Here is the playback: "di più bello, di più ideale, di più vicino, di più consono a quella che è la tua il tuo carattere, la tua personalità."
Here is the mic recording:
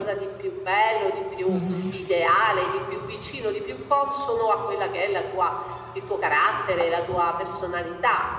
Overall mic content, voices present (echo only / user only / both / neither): both